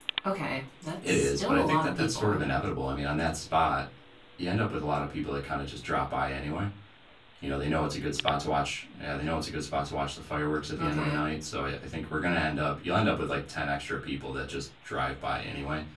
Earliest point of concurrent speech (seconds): 1.1 s

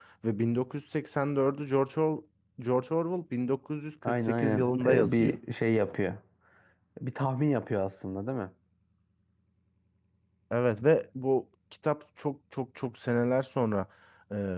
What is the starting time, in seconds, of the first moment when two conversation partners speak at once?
4.0 s

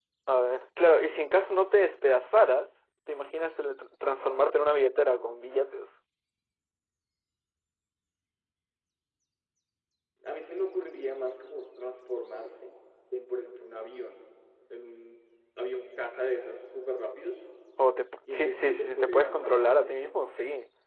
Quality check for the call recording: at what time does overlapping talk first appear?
18.3 s

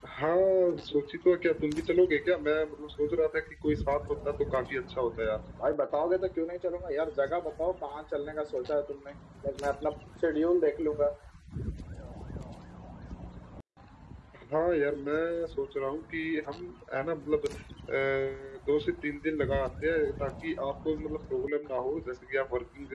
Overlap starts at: none

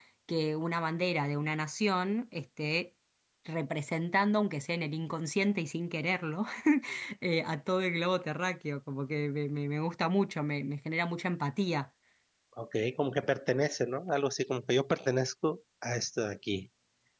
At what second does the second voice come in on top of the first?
none

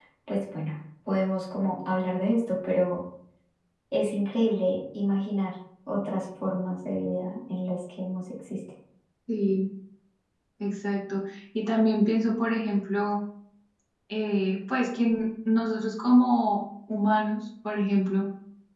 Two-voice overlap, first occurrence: none

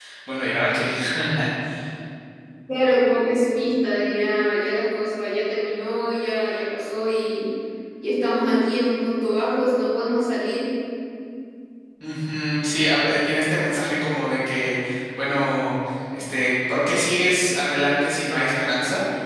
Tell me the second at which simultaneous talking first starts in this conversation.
none

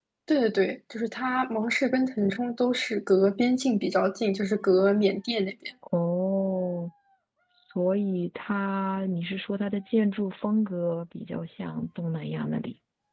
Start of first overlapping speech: none

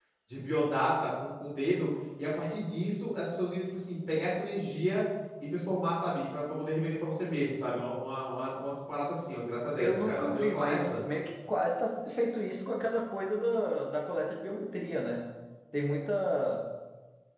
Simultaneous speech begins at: 9.8 s

